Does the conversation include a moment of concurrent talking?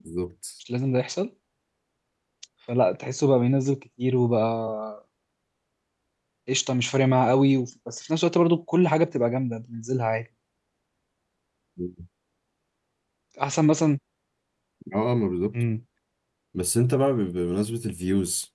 No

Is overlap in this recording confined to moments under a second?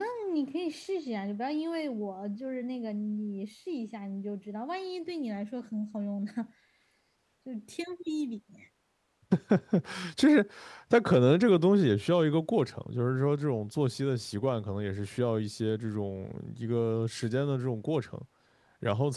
Yes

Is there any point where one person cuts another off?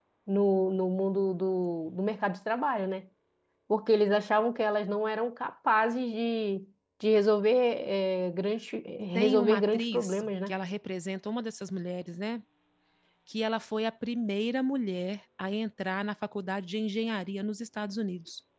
Yes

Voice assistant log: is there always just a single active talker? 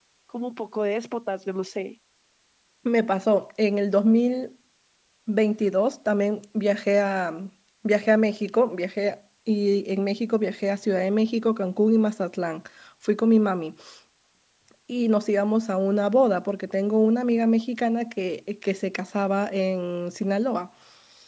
Yes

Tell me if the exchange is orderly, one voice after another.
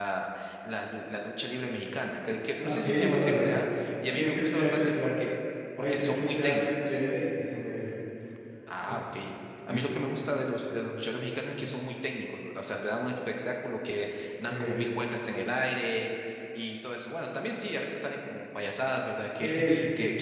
No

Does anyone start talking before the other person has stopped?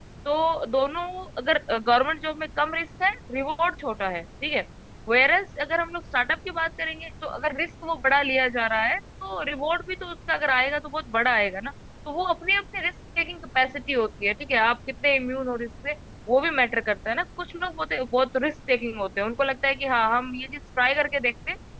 No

